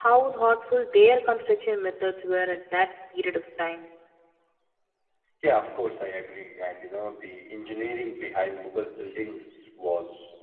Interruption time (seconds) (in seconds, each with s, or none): none